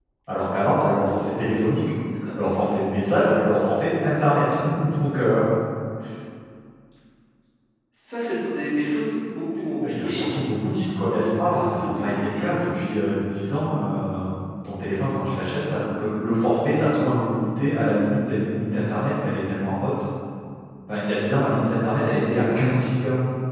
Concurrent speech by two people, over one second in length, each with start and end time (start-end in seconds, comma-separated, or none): 11.2-12.5